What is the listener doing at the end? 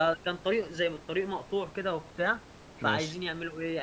listening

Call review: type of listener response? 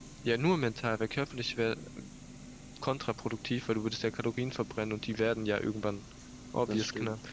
listening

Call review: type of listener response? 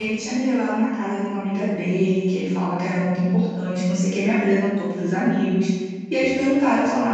listening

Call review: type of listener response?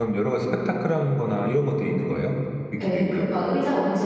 taking over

